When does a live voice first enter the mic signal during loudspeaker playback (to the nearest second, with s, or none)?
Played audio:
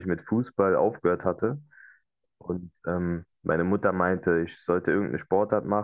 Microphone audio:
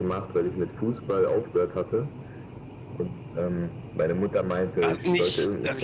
5 s